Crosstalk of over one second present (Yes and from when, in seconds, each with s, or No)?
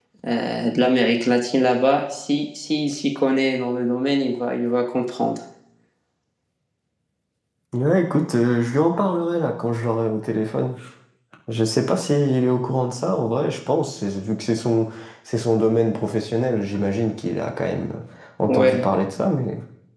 No